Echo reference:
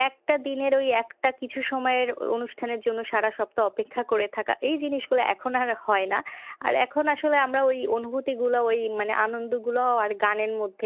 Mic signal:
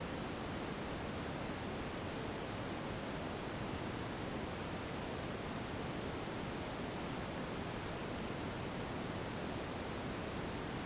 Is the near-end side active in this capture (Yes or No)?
No